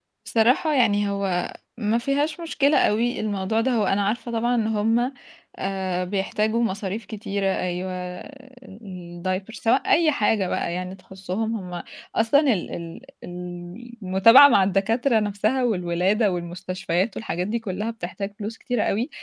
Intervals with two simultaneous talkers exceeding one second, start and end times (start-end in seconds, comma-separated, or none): none